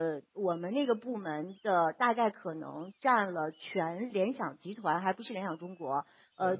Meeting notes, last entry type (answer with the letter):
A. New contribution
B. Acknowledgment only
B